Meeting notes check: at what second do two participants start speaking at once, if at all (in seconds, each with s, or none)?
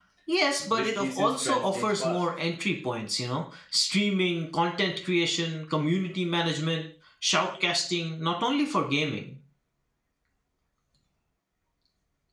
0.7 s